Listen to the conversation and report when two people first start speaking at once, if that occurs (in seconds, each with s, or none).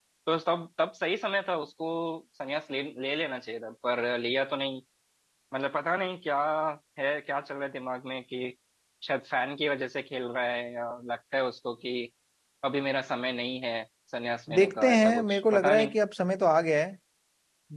14.5 s